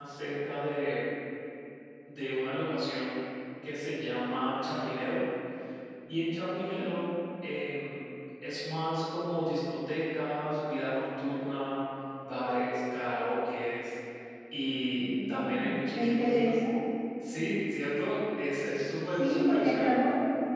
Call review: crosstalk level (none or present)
present